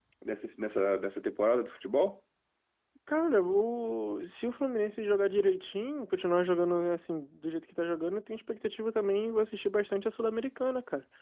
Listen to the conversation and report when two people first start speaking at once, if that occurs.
none

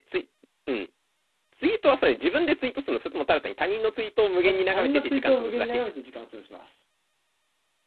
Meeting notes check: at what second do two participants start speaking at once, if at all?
4.4 s

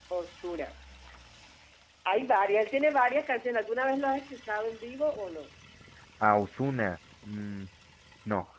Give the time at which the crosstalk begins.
none

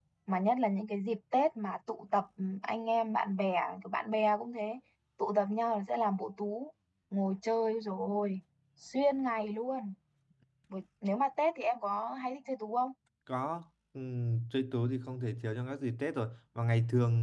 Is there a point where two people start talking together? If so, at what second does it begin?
none

